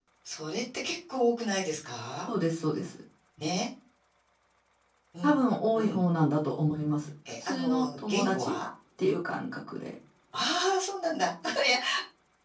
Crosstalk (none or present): present